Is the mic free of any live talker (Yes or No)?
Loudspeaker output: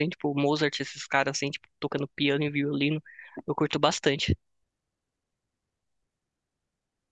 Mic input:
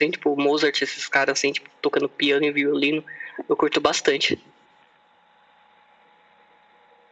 Yes